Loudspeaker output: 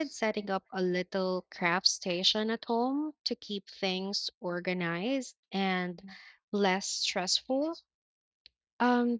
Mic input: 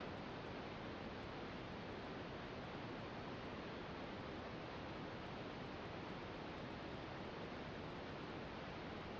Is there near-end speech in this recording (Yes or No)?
No